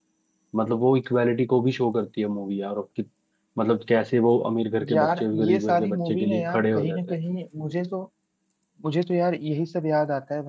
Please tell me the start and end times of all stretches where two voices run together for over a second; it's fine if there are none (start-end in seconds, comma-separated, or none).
4.9-7.2